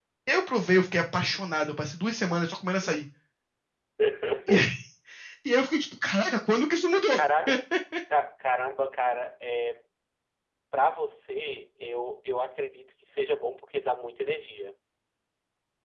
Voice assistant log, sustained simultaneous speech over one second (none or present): none